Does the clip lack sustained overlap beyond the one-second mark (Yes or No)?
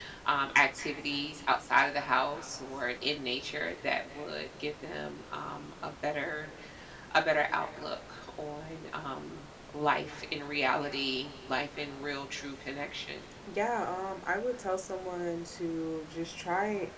Yes